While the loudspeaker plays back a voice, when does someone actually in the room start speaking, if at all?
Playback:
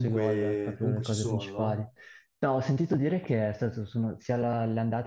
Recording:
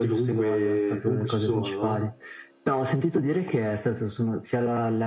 none

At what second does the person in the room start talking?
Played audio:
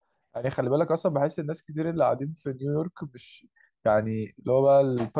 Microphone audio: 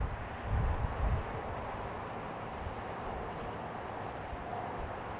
none

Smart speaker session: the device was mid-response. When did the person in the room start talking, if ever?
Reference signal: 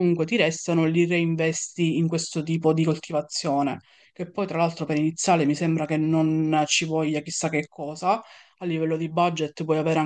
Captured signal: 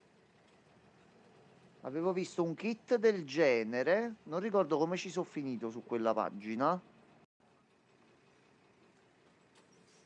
2 s

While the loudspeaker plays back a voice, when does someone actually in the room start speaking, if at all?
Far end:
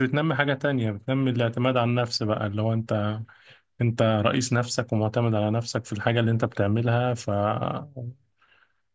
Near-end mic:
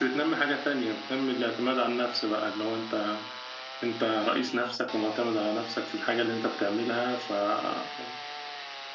none

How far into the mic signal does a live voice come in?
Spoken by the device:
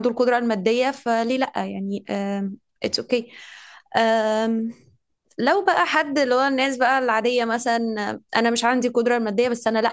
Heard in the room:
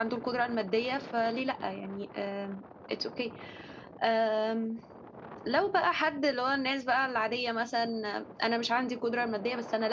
none

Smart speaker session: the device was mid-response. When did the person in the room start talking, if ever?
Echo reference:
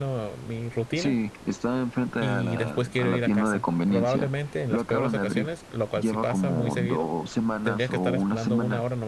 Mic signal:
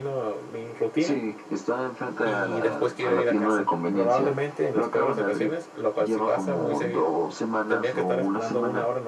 none

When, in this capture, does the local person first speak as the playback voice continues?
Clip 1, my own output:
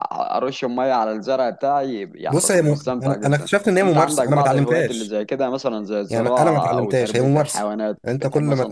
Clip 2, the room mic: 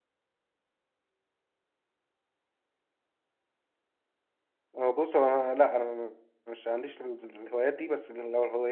5 s

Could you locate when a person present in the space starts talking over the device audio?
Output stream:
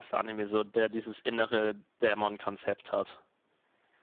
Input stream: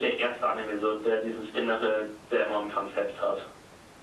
none

